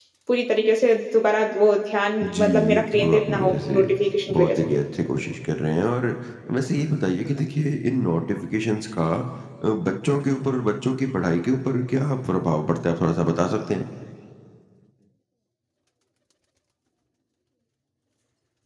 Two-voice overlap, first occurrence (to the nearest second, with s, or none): 2 s